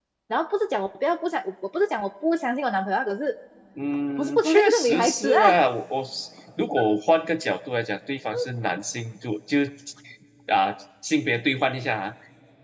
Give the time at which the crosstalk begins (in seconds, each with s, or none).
4.2 s